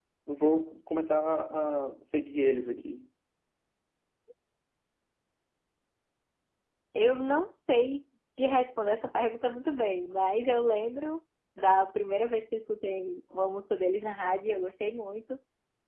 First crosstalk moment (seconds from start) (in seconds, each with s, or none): none